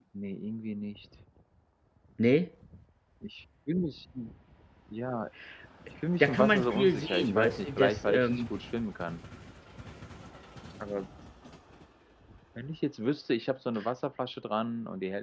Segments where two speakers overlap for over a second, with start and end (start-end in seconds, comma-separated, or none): 6.2-8.3